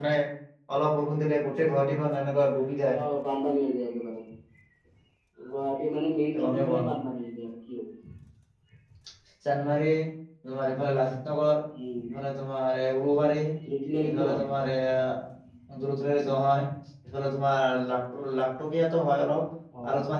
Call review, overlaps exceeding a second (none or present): none